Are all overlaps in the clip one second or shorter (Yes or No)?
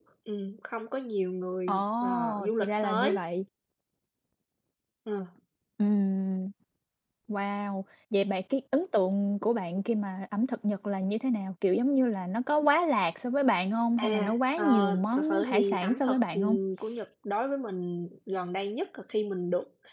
No